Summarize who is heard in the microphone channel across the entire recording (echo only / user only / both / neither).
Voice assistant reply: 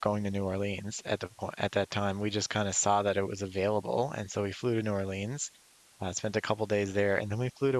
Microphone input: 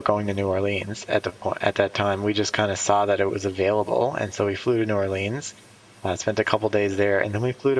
echo only